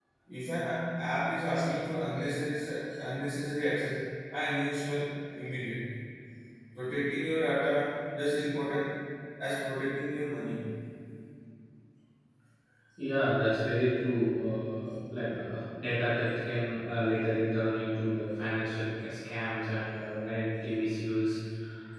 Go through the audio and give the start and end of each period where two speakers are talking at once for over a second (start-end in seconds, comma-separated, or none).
none